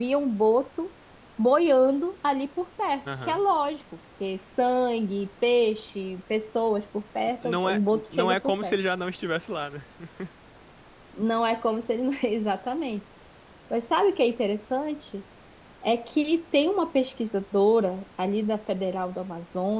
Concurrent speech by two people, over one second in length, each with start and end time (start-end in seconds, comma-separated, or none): 7.4-8.8